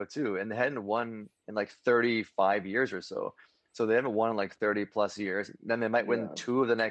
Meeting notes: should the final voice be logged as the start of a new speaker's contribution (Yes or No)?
No